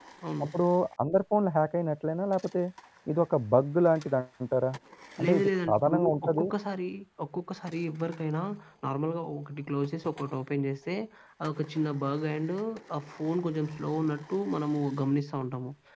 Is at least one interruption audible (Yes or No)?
Yes